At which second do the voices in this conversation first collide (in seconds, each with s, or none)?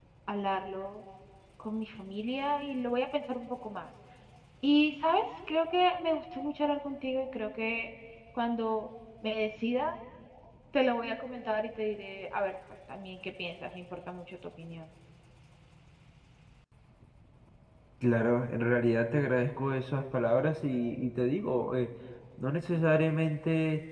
none